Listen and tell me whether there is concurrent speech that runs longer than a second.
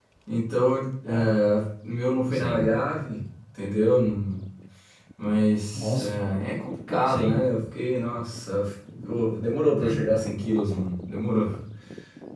No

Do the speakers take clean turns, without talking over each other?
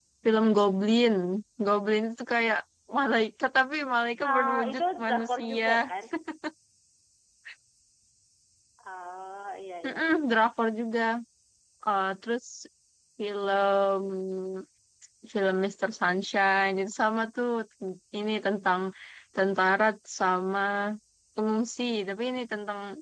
No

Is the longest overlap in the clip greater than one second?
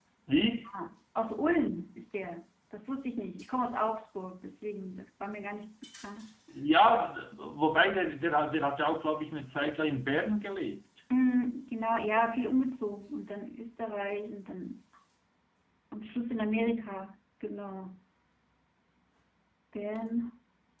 No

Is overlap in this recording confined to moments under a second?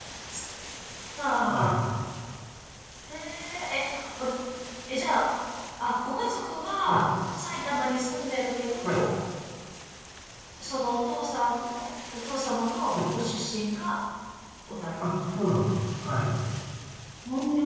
Yes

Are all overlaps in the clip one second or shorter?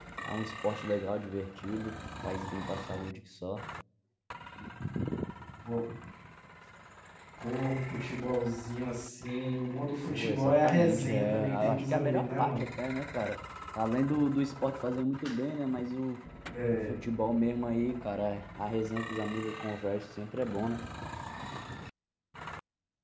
No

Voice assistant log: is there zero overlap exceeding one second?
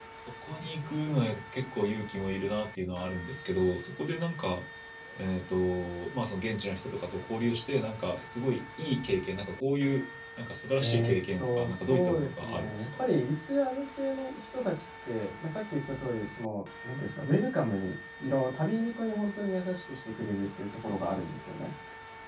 No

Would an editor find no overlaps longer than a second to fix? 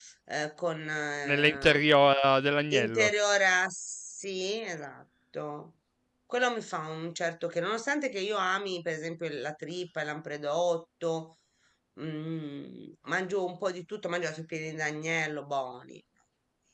Yes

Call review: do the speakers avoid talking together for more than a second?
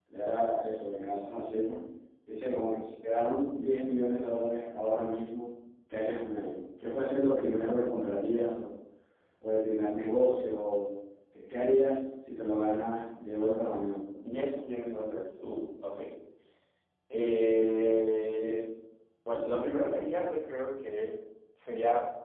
Yes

